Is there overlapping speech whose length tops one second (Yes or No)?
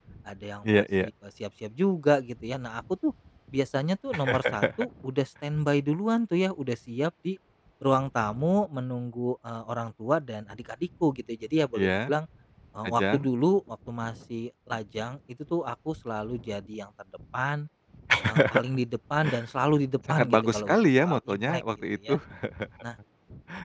Yes